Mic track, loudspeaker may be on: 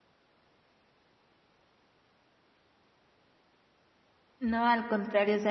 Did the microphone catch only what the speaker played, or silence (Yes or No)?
No